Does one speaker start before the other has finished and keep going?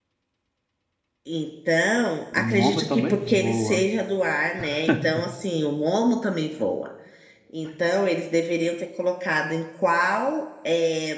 Yes, from 2.3 s

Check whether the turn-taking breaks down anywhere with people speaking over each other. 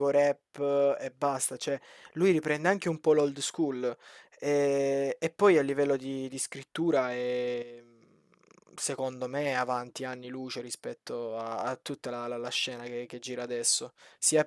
No

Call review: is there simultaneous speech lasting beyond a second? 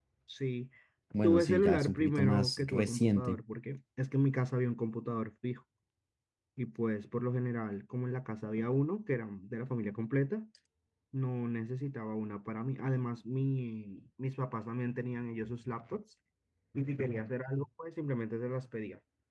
Yes, from 1.2 s

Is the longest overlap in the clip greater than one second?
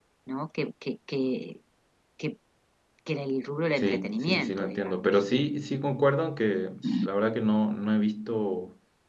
Yes, from 3.8 s

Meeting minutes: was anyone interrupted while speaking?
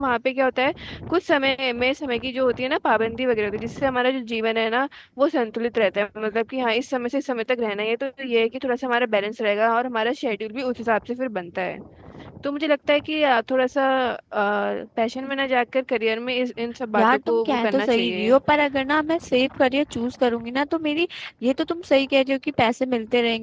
Yes, from 17.0 s

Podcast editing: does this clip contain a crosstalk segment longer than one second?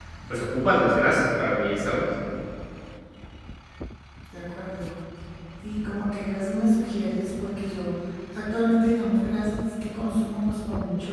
No

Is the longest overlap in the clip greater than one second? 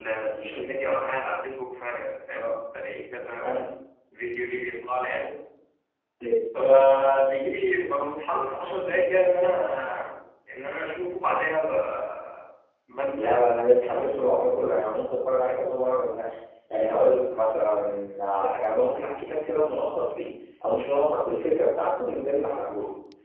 No

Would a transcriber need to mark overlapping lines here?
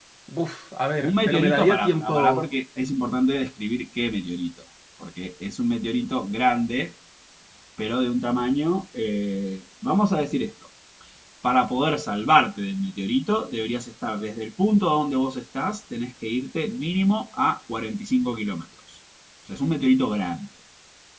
Yes, from 1.1 s

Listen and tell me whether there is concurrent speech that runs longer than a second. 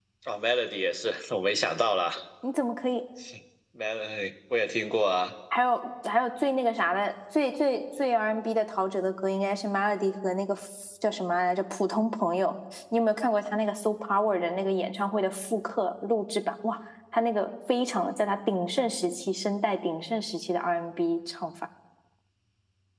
No

